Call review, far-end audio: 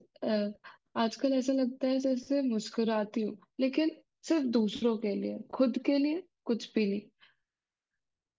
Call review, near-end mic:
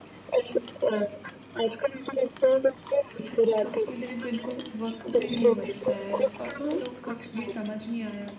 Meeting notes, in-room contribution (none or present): present